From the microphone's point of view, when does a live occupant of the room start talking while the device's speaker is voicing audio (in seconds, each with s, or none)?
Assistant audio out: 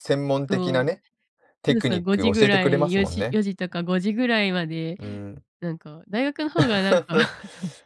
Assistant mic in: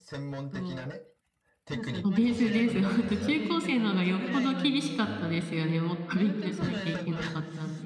2.0 s